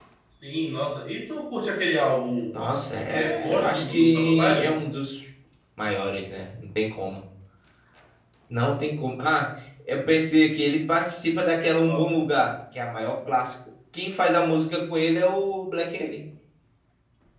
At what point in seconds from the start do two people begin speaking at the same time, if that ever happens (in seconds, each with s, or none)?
3.1 s